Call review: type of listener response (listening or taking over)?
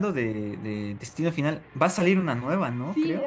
taking over